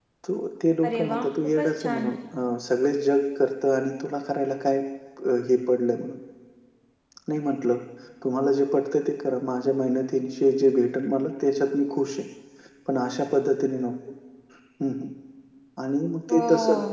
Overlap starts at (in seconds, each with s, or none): 0.8 s